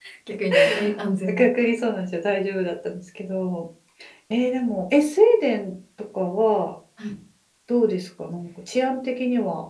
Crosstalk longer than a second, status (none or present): none